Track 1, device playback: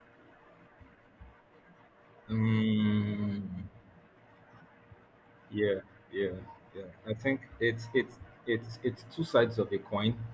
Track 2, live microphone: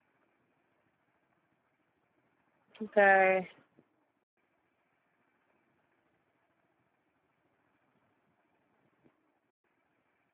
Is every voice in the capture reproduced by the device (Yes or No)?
No